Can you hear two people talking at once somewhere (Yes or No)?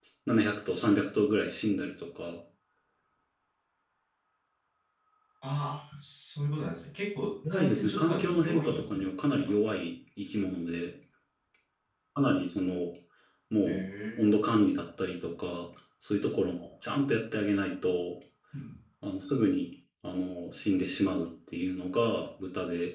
Yes